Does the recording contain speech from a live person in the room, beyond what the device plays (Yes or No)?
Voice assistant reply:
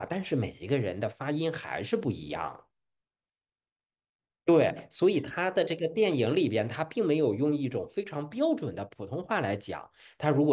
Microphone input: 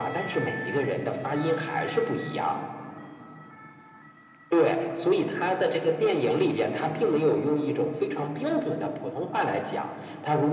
No